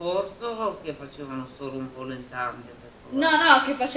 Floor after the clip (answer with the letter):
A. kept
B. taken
B